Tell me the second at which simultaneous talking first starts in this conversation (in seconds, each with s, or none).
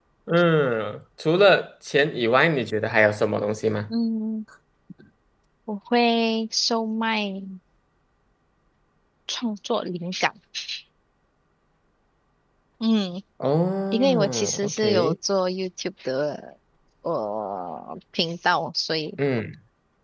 13.9 s